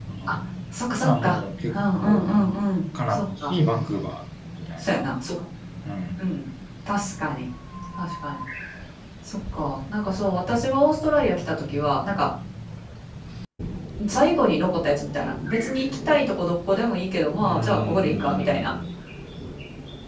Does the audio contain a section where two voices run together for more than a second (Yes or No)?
Yes